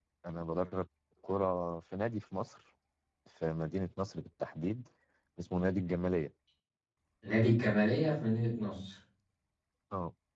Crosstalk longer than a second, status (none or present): none